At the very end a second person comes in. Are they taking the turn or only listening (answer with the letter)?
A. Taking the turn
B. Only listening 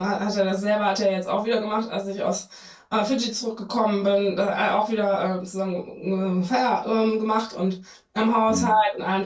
B